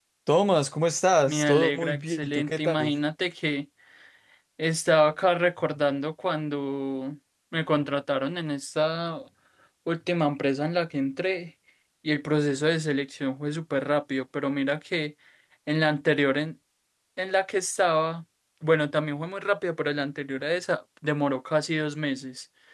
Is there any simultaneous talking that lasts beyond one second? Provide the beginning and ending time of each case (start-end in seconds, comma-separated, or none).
1.3-2.9